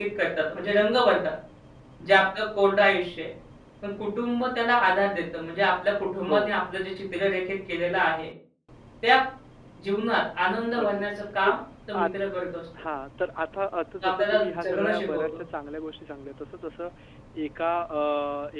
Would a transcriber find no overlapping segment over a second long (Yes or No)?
No